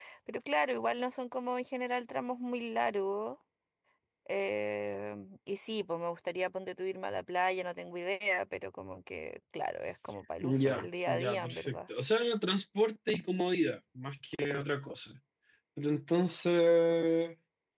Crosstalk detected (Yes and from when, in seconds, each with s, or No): Yes, from 10.4 s